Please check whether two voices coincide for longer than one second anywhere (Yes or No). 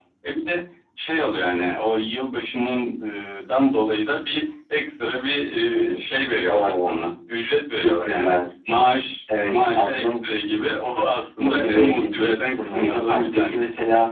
Yes